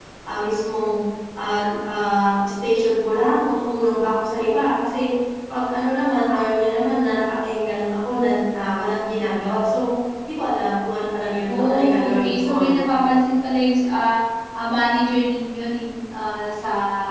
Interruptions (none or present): present